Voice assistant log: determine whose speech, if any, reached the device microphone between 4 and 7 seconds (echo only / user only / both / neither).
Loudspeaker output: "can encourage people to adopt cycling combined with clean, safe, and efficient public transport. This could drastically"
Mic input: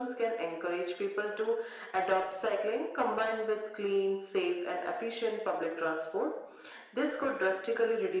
echo only